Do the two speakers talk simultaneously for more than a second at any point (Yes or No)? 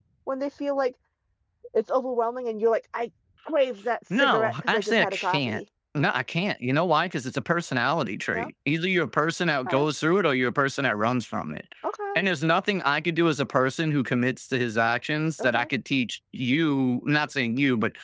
Yes